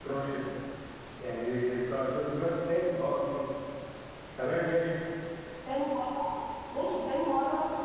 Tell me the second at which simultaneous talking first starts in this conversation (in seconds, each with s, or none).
none